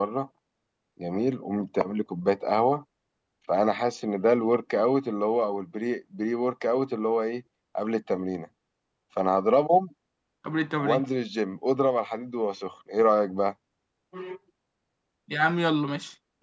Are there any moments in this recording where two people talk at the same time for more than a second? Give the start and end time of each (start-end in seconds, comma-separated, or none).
none